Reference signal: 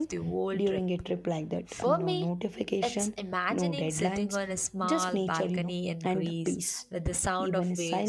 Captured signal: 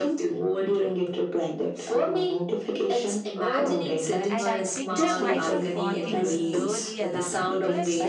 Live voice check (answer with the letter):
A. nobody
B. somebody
B